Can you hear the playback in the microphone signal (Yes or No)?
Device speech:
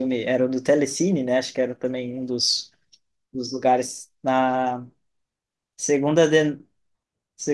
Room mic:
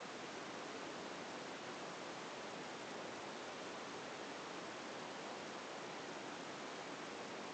No